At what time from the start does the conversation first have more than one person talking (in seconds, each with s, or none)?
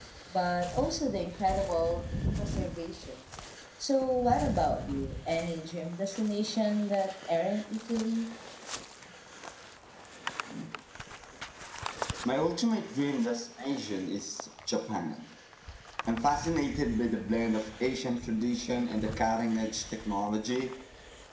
none